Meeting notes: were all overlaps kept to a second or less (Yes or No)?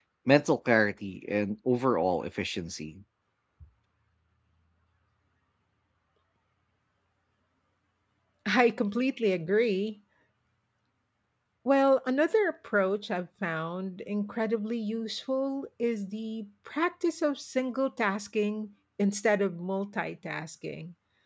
Yes